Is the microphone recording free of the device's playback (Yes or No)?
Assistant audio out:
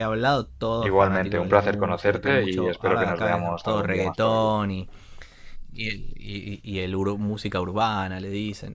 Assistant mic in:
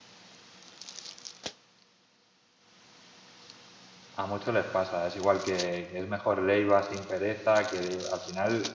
Yes